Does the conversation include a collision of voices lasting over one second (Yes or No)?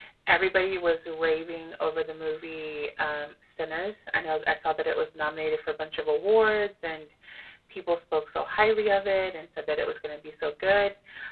No